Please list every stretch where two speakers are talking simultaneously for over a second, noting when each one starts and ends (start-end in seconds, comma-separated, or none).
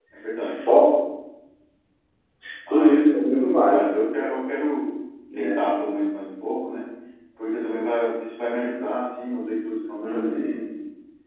2.7-3.9